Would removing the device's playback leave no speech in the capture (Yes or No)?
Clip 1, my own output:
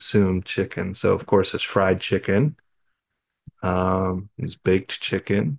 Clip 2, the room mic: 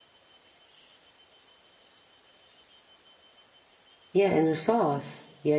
No